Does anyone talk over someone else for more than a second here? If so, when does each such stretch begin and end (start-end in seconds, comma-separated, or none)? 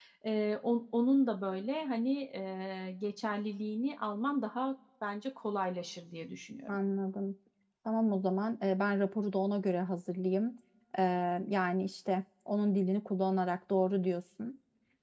none